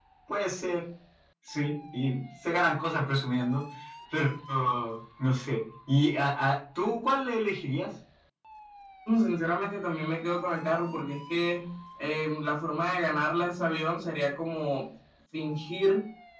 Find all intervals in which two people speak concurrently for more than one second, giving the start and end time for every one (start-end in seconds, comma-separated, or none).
none